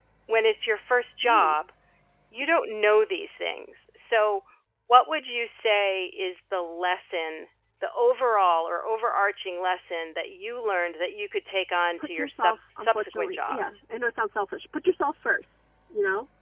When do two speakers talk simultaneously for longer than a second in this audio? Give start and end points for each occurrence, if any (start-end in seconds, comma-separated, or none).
12.0-13.8